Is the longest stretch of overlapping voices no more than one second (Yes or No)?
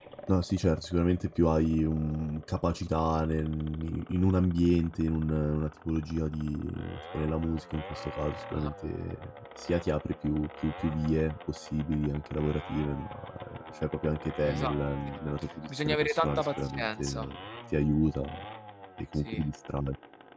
No